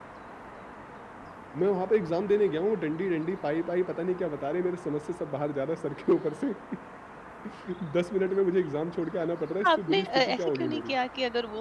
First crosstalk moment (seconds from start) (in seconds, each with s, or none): 9.6 s